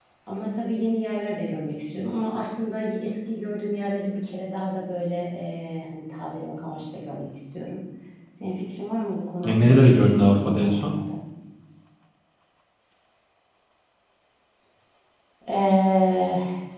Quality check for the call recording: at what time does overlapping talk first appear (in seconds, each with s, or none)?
9.4 s